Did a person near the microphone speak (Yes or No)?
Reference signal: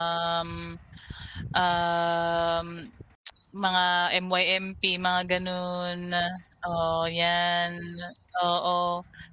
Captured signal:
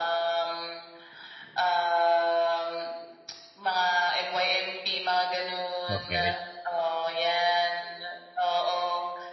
Yes